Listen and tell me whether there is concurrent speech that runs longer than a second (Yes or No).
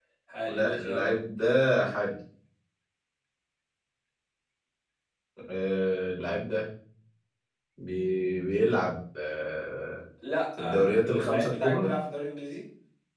Yes